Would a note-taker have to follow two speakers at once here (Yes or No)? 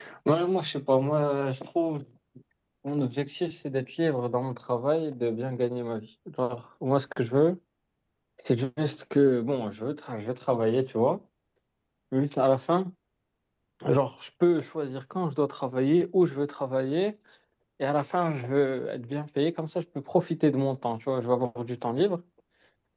No